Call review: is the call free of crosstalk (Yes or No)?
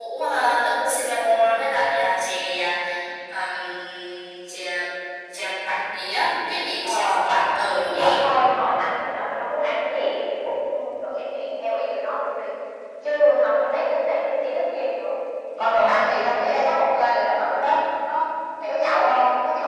No